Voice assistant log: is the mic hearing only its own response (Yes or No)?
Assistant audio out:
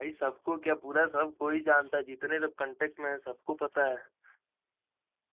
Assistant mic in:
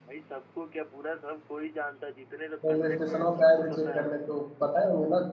No